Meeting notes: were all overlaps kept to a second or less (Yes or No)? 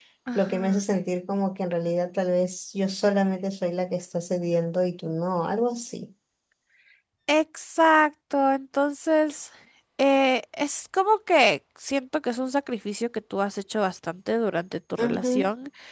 Yes